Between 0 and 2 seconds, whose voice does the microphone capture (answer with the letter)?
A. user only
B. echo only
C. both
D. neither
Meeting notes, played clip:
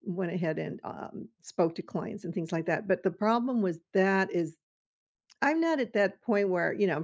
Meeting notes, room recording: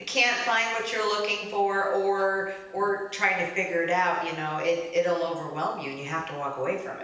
A